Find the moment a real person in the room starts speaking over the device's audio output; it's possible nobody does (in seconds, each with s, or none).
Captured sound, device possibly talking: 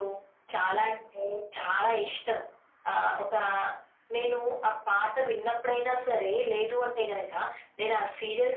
none